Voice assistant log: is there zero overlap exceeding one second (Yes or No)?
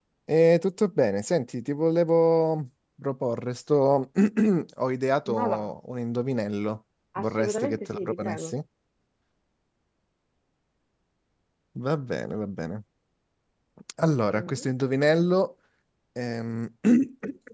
No